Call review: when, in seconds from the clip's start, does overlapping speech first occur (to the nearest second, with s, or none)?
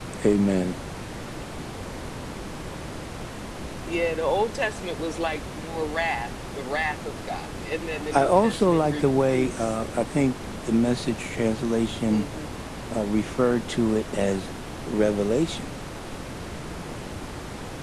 8 s